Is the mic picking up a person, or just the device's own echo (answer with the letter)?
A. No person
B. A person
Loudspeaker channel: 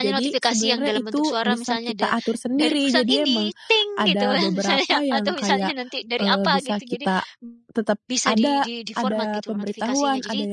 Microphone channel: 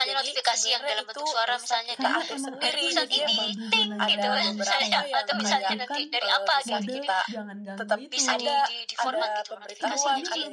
B